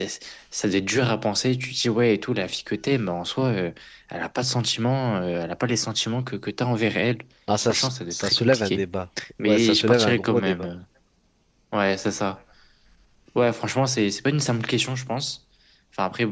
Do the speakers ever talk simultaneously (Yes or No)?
Yes